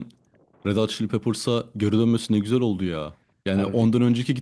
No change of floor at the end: Yes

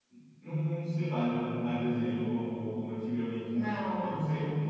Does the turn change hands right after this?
No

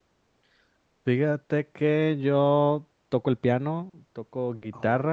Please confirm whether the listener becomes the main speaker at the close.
No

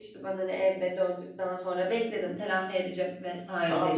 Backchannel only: No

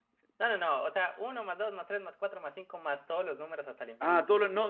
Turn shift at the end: Yes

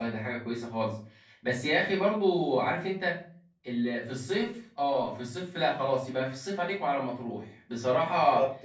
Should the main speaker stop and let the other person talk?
No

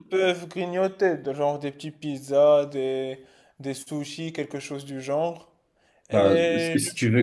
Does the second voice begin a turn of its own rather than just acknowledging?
Yes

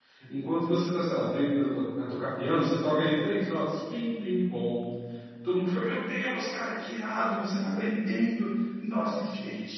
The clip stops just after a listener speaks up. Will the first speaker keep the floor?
No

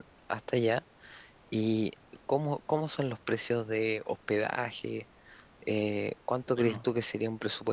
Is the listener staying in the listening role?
Yes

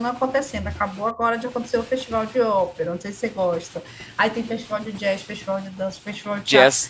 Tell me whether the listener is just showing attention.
Yes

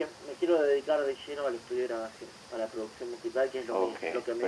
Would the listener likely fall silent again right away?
No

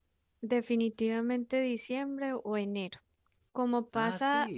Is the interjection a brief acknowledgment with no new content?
Yes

